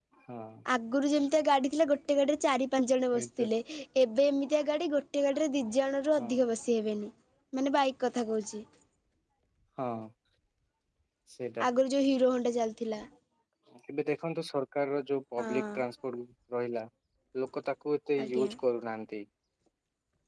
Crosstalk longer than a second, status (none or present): none